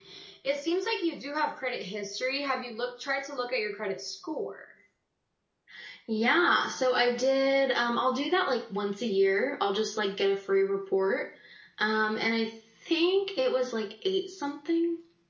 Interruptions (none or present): none